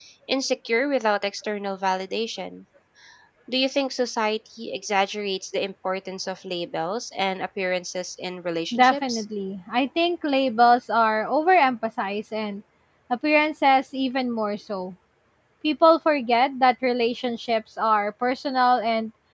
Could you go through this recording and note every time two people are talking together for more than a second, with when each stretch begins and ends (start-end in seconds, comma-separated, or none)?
none